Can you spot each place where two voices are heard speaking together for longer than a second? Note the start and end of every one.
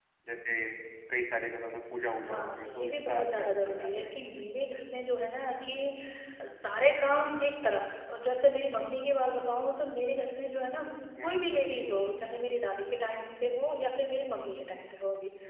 2.2-4.2

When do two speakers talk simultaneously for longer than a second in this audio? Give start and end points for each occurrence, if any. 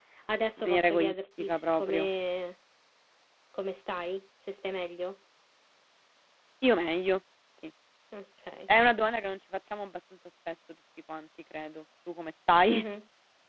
0.6-2.1

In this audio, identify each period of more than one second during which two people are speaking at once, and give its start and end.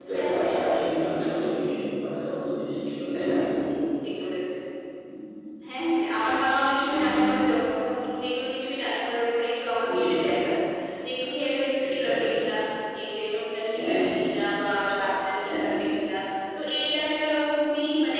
none

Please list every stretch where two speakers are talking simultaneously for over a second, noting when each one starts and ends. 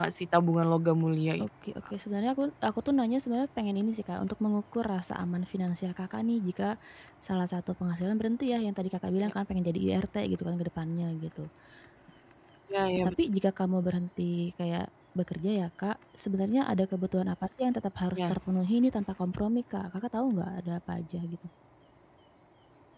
none

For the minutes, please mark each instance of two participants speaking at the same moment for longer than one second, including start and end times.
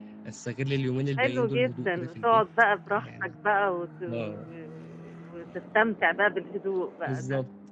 1.2-2.4

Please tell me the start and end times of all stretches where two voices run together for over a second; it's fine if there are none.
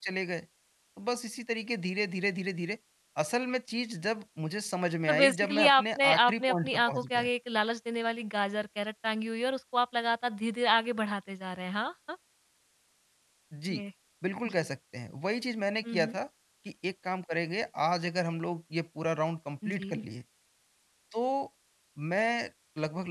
5.1-7.3

